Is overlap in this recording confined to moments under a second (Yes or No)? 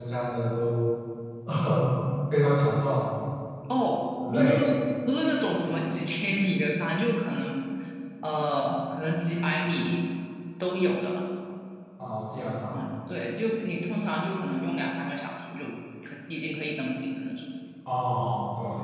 Yes